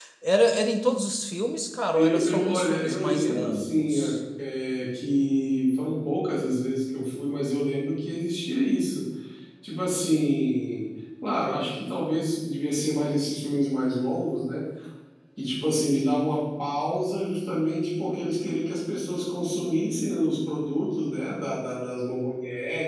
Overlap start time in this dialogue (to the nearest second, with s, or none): 2 s